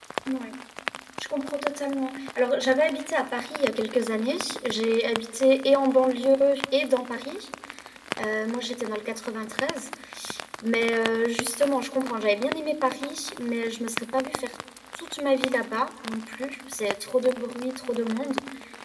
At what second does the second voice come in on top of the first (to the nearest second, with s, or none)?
none